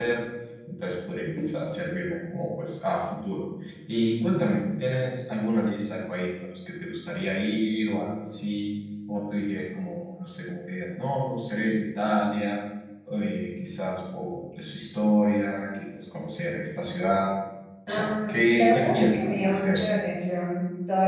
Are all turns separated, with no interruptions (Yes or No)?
No